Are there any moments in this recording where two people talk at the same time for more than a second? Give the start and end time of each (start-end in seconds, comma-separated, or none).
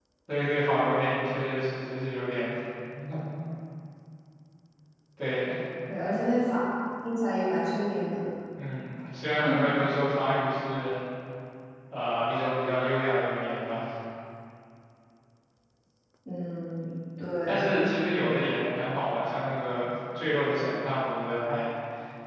none